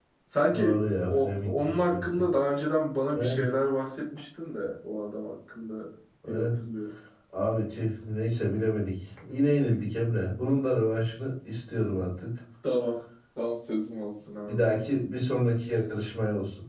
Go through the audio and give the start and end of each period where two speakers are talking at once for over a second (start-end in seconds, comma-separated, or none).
0.5-2.2